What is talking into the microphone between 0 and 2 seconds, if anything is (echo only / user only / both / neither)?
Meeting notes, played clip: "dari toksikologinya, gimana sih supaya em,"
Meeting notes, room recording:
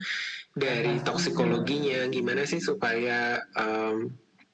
both